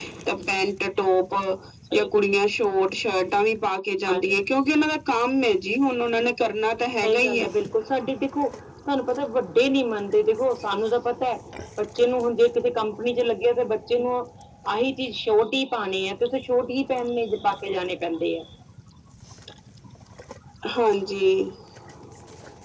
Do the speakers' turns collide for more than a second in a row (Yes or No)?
No